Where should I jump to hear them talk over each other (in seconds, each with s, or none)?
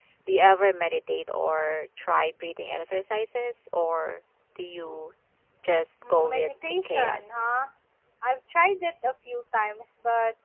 6.0 s